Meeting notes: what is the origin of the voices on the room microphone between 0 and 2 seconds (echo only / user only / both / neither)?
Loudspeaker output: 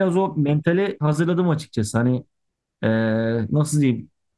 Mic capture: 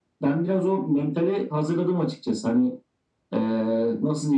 echo only